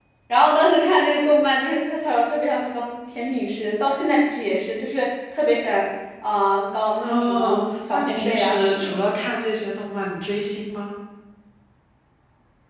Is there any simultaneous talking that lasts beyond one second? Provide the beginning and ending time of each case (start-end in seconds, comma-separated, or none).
7.0-9.0